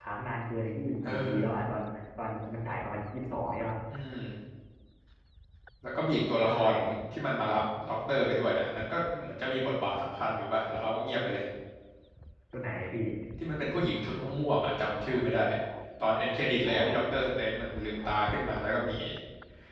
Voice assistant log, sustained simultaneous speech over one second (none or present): none